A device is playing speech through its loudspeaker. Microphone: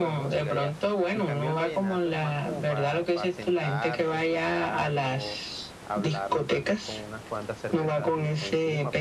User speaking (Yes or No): Yes